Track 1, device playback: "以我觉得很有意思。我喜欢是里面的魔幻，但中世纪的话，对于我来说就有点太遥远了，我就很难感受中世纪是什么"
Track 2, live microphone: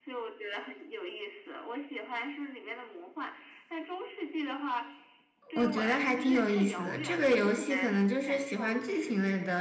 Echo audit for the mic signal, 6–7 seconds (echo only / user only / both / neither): both